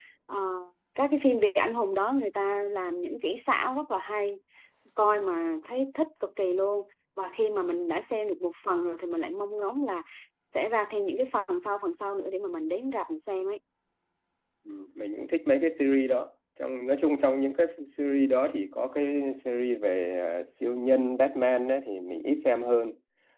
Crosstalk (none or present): none